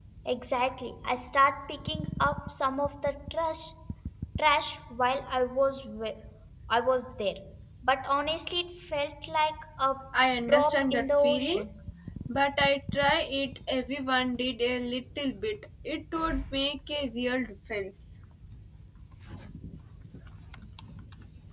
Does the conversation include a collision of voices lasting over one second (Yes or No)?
Yes